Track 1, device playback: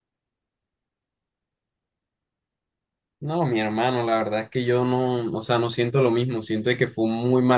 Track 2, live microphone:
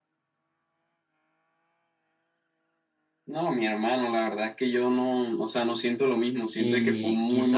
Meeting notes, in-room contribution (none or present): present